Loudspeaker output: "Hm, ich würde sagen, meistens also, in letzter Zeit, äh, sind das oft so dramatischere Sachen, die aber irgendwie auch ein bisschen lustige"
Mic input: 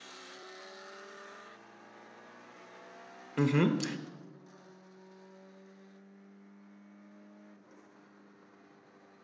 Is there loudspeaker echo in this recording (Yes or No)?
No